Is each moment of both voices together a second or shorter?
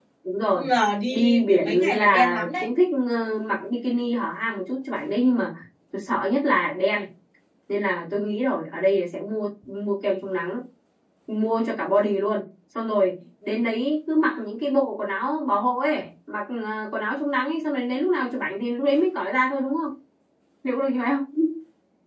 No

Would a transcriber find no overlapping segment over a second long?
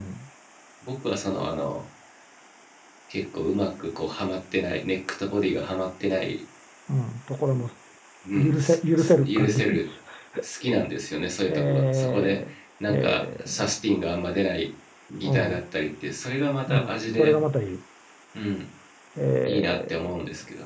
No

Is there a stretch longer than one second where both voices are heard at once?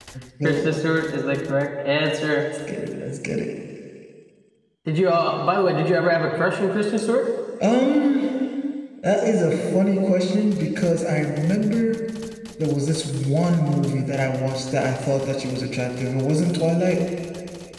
No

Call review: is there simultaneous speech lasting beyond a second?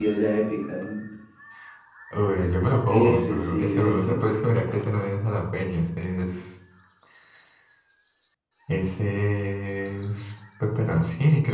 Yes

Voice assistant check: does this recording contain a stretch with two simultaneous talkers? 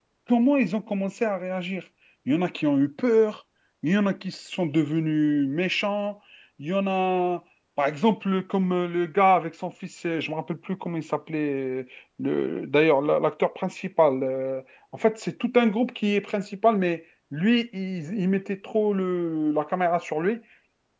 No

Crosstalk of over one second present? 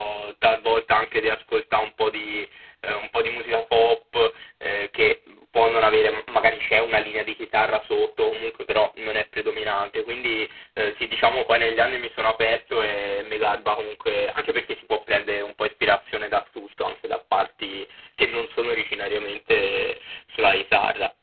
No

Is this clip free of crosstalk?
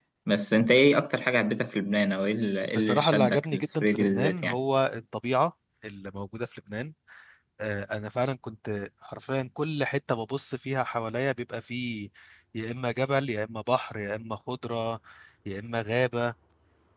No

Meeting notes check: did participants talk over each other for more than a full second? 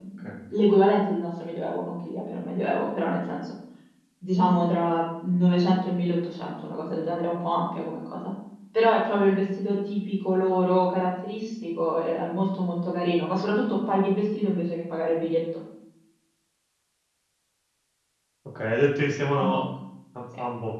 No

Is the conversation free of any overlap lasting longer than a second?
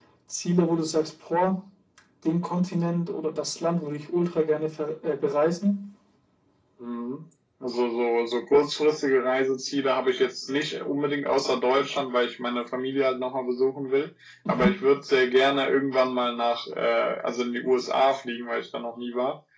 Yes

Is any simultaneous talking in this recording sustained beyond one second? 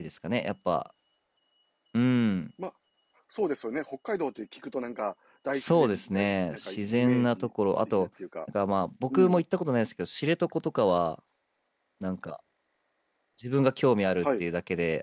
Yes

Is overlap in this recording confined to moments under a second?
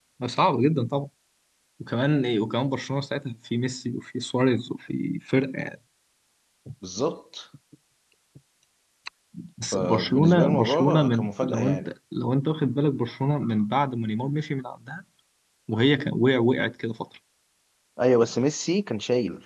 No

